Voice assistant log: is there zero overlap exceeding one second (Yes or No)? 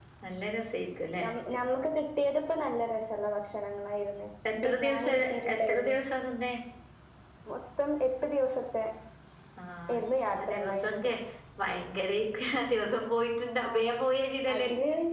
No